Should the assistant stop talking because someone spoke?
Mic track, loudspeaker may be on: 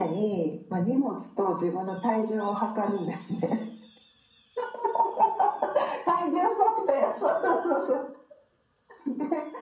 No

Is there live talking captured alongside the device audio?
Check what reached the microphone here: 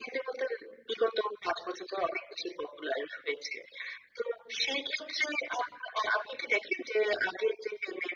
No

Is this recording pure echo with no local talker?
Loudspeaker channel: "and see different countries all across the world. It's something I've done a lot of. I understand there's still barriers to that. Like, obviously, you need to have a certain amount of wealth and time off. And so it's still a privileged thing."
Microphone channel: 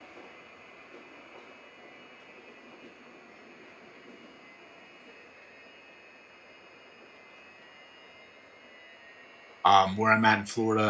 No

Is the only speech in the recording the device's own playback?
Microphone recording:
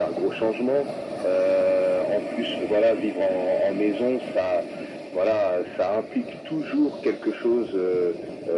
Yes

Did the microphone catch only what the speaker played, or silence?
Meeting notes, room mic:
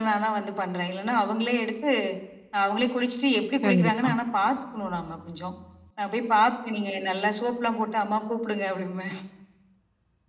No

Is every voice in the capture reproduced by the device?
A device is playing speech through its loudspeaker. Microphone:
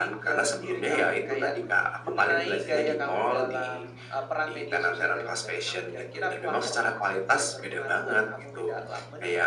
Yes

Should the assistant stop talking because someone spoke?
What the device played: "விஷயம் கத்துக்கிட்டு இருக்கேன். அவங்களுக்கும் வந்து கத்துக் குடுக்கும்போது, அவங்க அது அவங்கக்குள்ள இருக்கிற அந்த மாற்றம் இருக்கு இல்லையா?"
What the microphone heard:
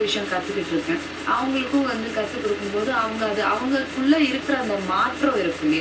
No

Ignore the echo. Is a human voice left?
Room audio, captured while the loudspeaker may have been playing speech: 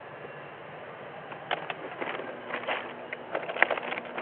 No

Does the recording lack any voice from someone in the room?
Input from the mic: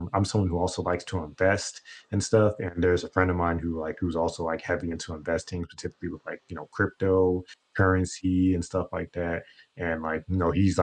No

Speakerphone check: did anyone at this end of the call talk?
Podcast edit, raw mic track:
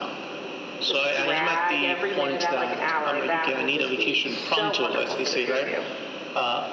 Yes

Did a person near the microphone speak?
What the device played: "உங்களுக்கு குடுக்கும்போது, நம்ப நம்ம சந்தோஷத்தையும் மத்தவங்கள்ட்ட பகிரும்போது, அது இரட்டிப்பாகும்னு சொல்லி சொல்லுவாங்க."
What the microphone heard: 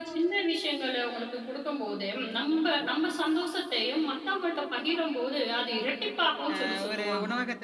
Yes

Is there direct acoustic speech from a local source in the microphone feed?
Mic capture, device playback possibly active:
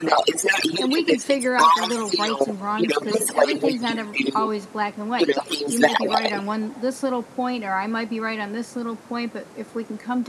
Yes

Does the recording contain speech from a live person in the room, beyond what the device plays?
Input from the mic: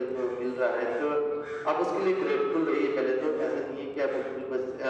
No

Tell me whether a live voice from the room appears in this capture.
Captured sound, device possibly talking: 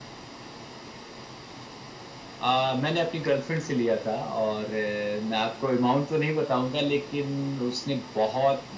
No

